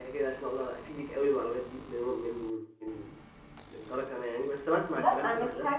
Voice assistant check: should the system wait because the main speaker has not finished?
No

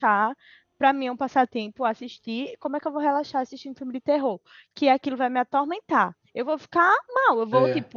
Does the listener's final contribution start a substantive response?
No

